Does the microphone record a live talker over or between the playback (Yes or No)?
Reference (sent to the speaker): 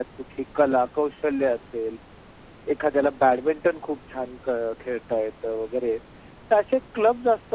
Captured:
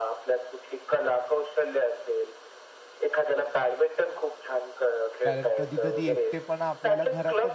Yes